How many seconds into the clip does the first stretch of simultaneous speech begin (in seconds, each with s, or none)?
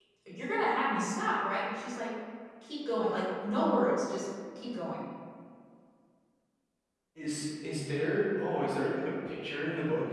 none